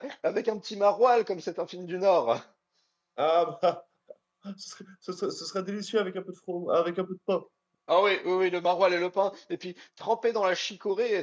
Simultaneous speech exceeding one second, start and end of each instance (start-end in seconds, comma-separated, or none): none